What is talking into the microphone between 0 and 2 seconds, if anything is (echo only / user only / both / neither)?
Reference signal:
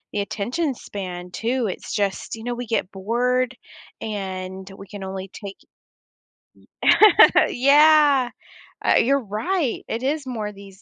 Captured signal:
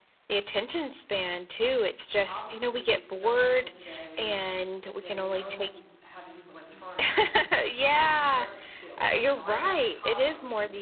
echo only